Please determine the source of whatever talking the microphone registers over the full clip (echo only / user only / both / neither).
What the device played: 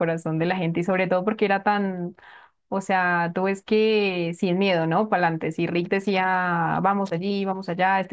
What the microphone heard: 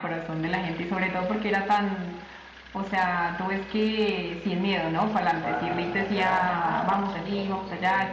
both